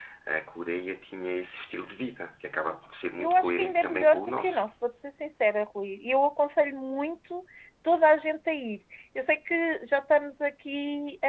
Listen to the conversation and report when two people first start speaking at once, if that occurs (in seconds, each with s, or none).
3.2 s